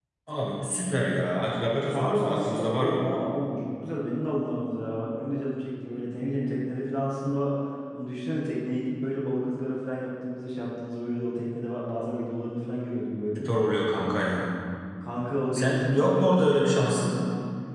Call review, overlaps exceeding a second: present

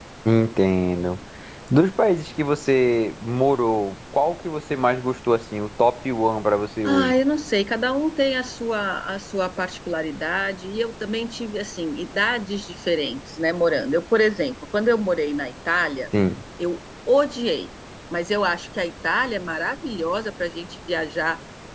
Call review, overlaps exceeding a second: none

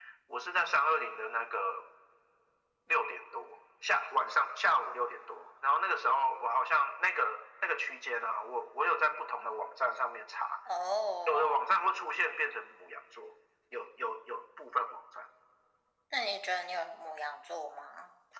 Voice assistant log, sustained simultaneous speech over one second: none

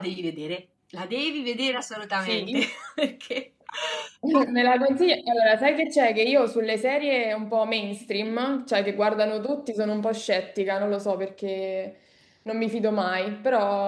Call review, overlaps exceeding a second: none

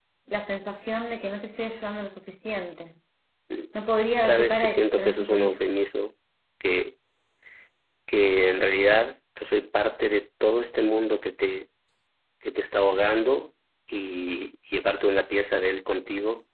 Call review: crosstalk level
present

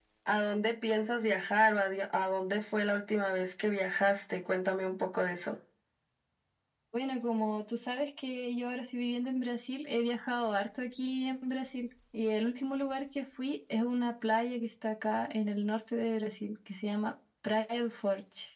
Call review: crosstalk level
none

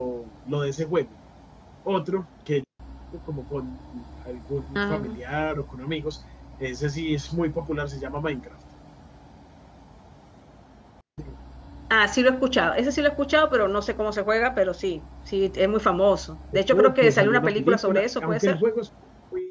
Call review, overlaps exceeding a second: present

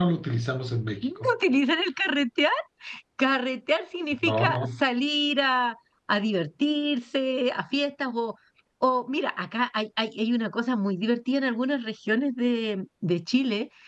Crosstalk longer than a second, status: none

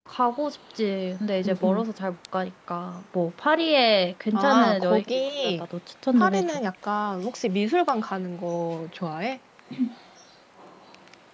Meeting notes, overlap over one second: present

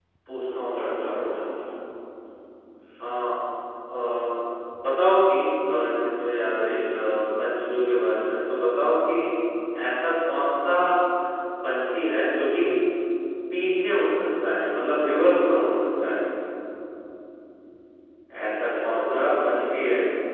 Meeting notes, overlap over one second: present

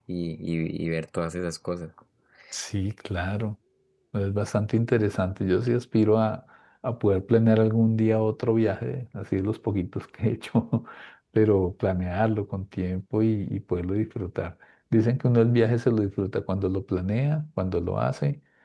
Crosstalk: none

